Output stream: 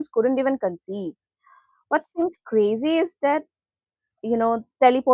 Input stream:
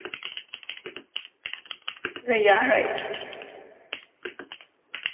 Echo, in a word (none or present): none